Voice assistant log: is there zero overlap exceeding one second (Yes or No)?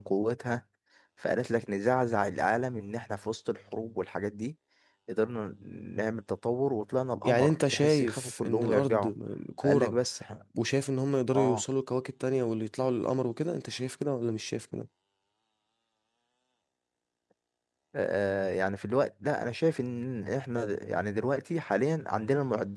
No